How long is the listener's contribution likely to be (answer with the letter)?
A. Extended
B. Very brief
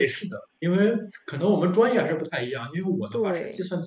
B